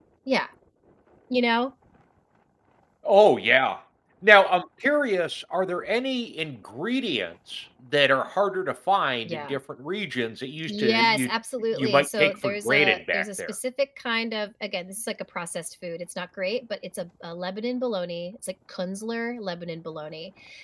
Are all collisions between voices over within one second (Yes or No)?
No